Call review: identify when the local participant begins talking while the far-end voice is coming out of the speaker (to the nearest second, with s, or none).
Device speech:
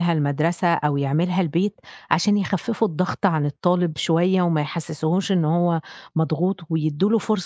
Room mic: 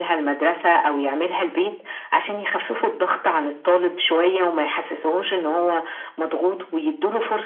none